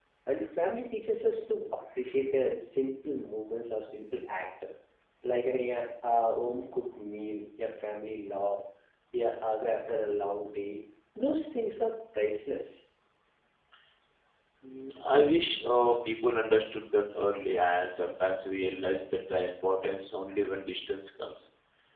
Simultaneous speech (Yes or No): No